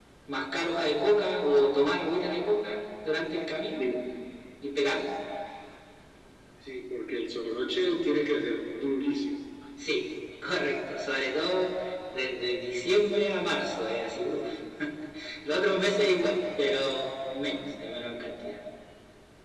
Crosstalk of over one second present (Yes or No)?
No